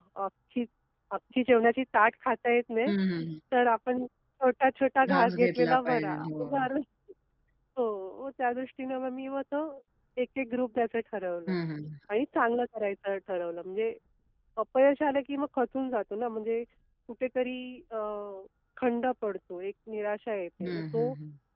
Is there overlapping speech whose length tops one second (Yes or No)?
Yes